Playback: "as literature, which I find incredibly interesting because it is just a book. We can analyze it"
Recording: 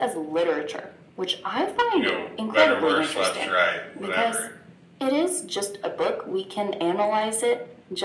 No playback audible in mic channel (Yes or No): No